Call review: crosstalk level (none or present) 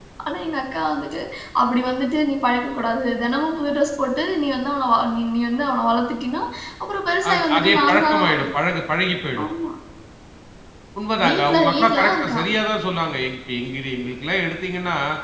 present